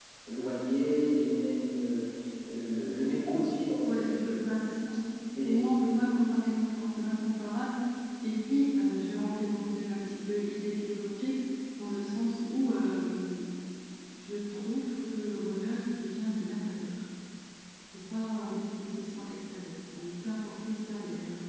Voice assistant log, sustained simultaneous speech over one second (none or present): none